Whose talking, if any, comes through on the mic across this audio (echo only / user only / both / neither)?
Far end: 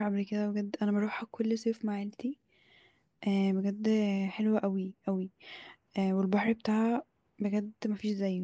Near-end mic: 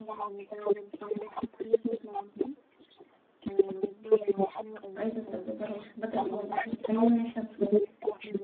both